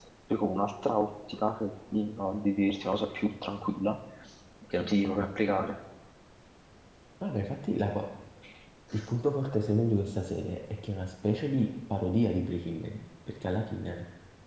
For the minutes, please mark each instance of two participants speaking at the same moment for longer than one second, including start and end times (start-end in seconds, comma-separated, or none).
none